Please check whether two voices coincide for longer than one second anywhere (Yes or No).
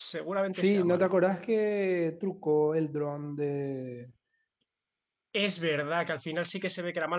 No